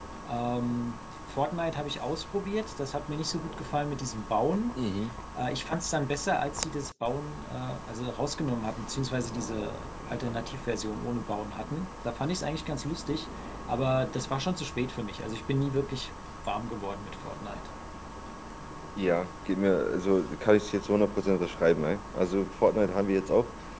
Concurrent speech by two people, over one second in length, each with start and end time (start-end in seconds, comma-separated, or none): none